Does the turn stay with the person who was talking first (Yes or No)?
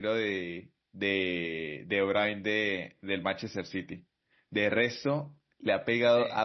Yes